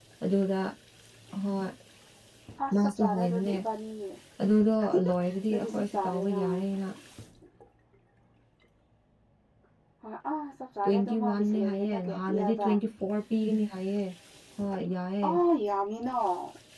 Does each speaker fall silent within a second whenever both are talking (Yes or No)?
No